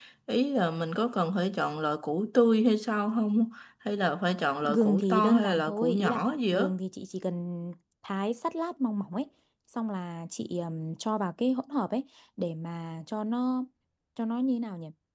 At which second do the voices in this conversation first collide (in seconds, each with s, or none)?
4.6 s